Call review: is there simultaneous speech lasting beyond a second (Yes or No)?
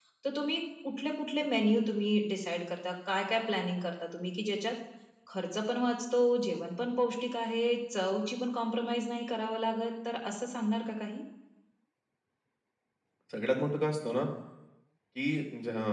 No